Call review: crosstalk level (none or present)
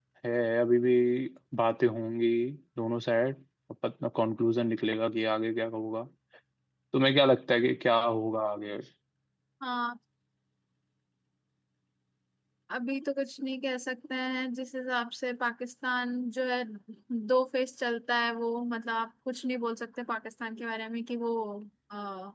none